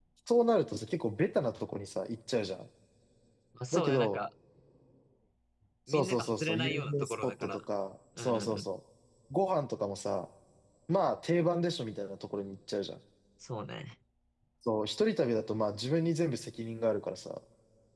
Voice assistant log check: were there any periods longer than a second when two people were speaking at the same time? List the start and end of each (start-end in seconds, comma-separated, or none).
5.9-7.6